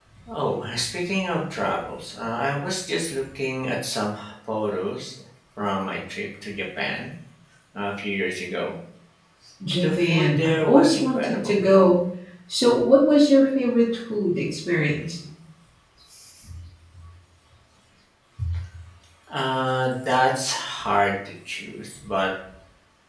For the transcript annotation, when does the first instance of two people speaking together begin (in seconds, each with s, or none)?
9.8 s